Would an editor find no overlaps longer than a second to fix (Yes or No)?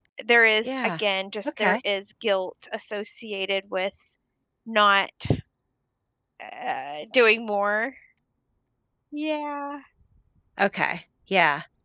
Yes